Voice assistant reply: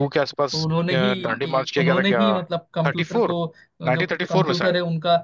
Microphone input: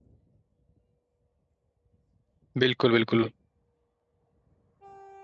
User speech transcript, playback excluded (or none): बिल्कुल बिल्कुल